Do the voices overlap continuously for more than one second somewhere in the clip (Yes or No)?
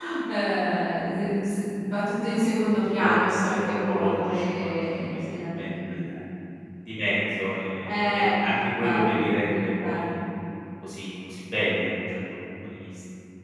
Yes